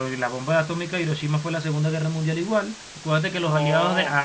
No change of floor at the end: Yes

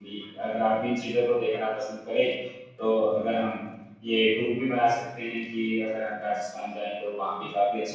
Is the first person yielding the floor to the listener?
Yes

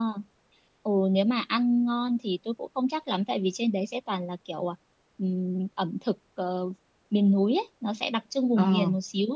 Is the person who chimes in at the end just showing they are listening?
Yes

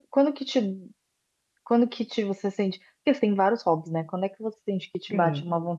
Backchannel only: Yes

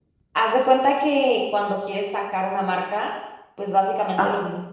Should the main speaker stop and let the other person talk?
No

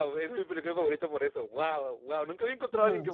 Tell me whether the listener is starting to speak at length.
No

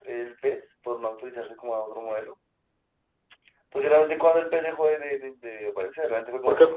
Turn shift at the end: Yes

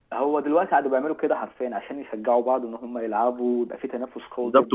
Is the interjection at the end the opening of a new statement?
Yes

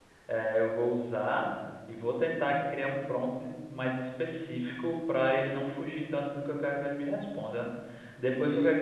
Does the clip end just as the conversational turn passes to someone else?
No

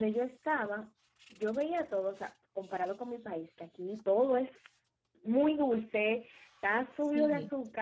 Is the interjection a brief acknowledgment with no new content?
Yes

